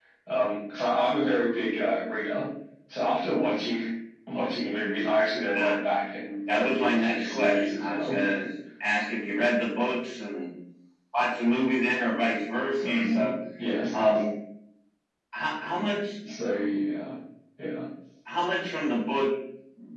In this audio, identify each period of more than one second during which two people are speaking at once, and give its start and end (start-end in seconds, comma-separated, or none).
6.5-8.2